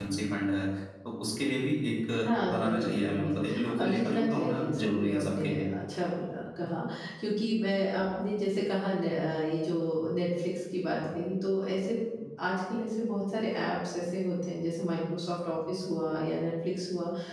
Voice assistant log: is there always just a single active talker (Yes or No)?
No